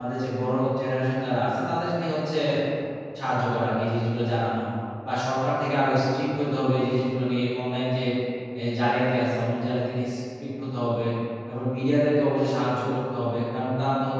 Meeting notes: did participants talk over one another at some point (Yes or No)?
No